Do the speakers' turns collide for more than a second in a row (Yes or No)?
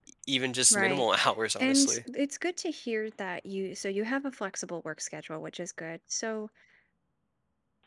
No